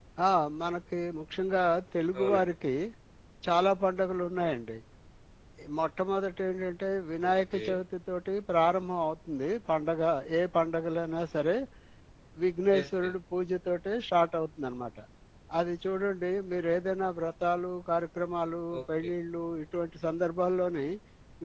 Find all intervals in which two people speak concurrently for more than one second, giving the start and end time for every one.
none

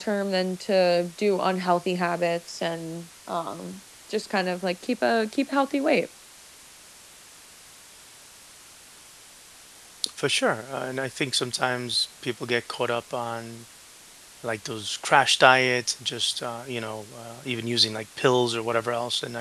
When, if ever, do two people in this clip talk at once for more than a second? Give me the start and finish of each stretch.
none

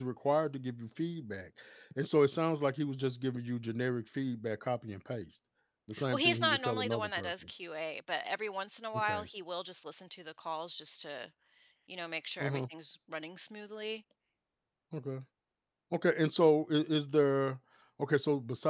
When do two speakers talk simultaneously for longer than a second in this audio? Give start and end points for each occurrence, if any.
6.1-7.3

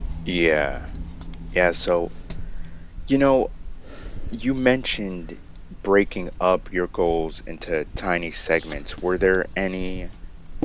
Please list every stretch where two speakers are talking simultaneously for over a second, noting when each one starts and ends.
none

